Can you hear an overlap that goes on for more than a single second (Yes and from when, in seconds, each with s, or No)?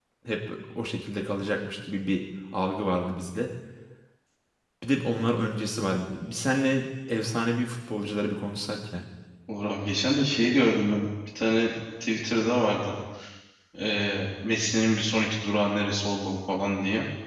No